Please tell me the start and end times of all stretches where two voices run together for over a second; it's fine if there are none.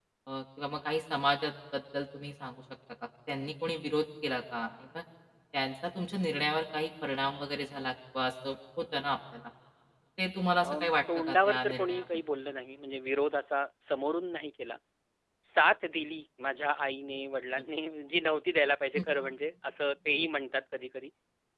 10.6-12.0

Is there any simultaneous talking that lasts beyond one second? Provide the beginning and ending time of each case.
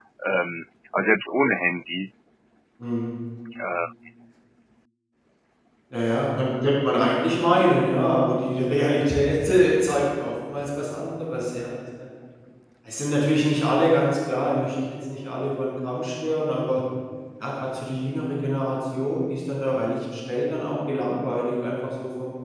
none

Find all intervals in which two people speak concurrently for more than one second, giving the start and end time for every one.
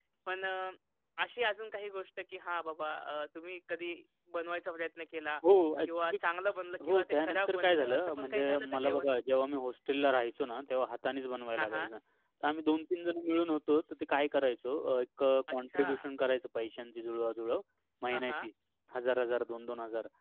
6.8-9.1

